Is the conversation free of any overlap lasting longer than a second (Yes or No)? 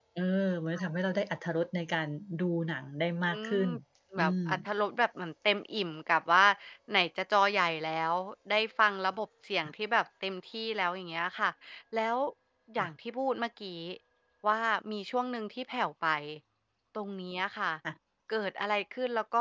Yes